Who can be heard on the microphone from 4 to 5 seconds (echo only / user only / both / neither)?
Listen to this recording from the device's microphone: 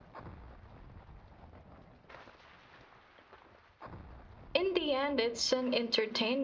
user only